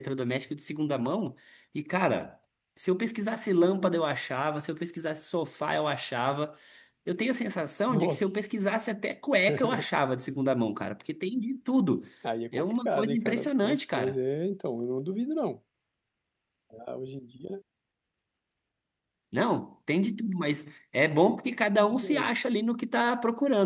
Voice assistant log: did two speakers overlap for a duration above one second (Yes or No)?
Yes